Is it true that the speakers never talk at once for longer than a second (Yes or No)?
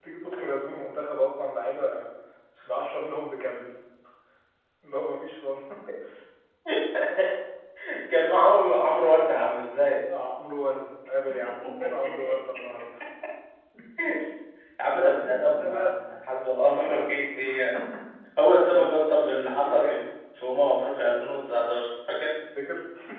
No